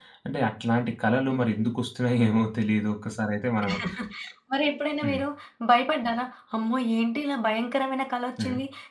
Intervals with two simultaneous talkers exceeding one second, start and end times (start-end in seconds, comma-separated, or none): none